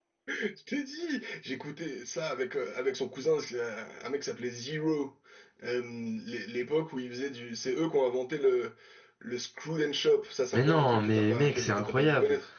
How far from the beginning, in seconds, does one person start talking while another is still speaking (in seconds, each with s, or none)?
10.5 s